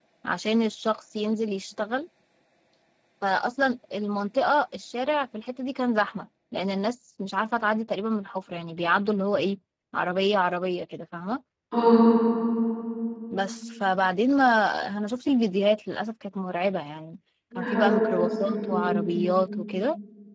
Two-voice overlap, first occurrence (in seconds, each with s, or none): 17.5 s